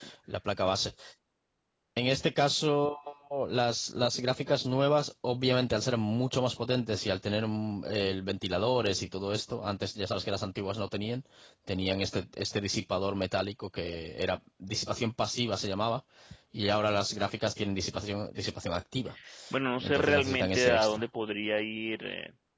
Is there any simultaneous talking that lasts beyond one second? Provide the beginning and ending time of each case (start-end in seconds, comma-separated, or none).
19.8-21.0